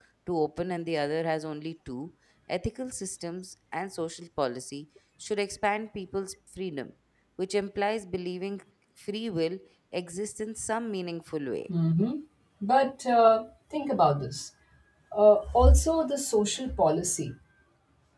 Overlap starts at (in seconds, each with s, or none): none